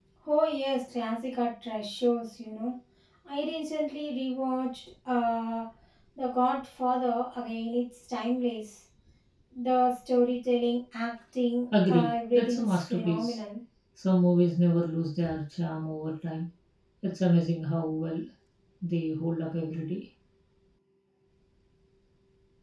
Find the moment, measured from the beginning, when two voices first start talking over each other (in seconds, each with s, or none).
11.7 s